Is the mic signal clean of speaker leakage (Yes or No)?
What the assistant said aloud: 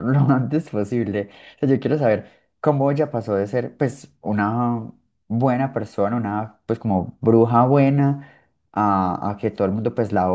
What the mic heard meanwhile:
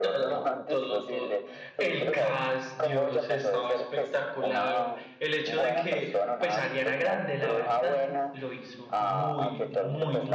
No